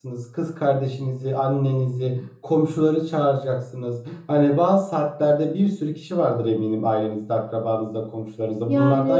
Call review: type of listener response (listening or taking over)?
listening